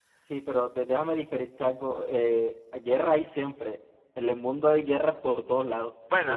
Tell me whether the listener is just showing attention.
Yes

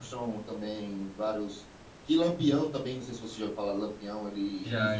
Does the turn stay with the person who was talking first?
Yes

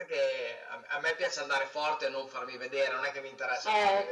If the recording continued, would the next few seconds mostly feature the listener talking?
Yes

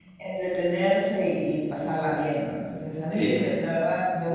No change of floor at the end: Yes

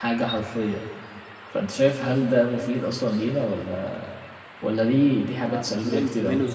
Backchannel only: No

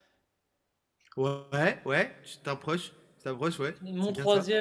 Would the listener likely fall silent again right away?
No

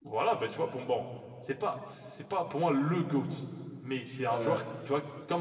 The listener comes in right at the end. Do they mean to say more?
No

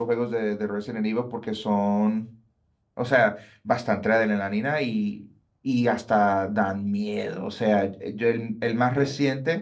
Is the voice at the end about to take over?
No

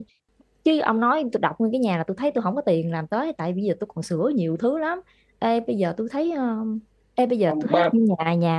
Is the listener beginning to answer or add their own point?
No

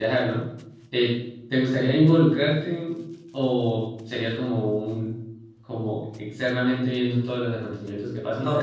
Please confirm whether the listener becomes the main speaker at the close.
Yes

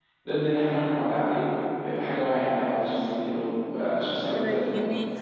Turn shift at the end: Yes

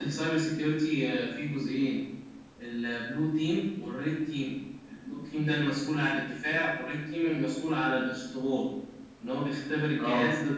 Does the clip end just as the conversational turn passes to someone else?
No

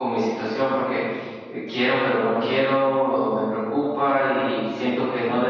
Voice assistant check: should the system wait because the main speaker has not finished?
Yes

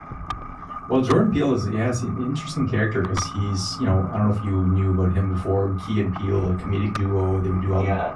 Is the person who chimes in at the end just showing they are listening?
Yes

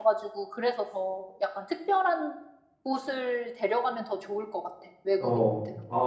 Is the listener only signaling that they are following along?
No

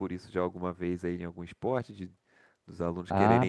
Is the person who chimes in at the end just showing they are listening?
No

